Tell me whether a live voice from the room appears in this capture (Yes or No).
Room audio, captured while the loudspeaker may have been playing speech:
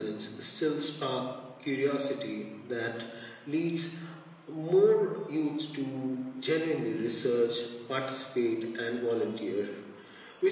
No